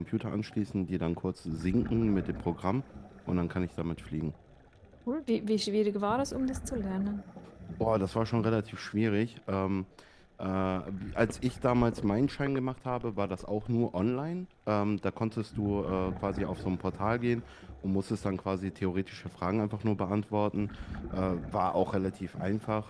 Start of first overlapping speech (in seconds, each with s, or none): none